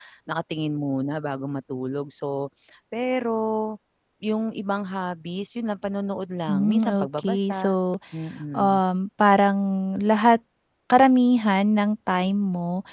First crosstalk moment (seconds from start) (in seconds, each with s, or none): 6.5 s